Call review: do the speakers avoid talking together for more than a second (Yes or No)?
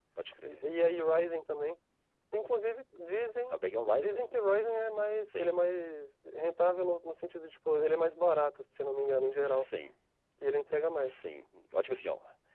Yes